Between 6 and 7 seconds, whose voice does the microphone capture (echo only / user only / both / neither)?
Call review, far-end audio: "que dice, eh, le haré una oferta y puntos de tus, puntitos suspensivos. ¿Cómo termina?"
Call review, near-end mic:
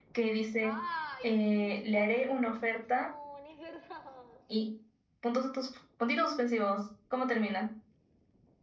echo only